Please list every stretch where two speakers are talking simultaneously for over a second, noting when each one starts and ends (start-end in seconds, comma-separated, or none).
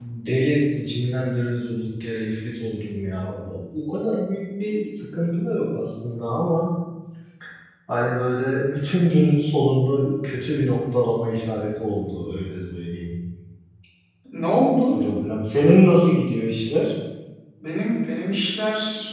none